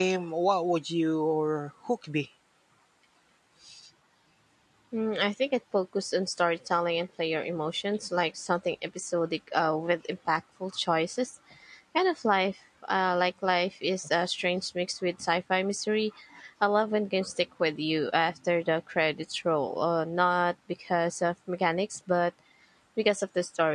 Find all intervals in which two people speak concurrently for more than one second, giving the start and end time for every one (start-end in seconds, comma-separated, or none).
none